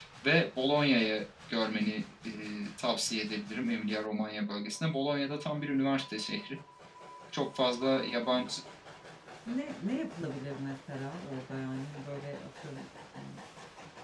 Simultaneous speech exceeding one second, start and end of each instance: none

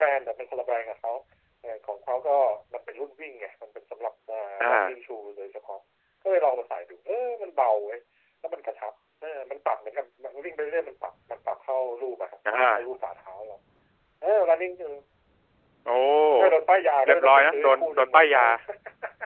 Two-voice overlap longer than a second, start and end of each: 17.1-18.4

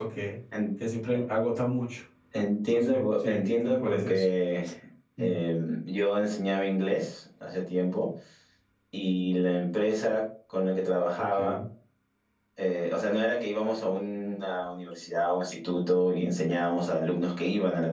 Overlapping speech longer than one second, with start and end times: 2.7-4.2

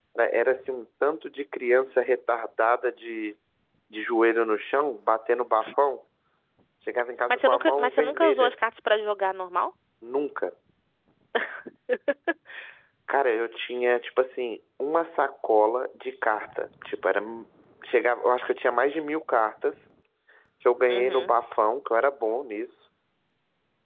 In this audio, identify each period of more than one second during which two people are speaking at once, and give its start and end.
7.3-8.5

